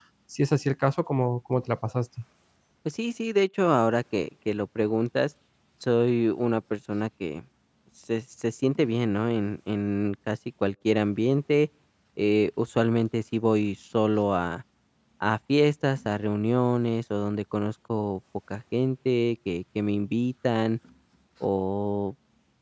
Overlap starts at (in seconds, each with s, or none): none